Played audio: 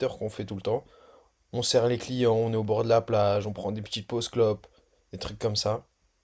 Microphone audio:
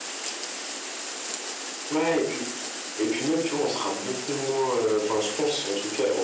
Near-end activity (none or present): present